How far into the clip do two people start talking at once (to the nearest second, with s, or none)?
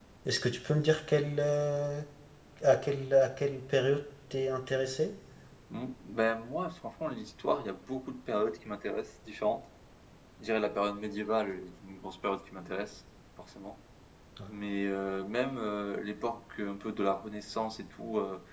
none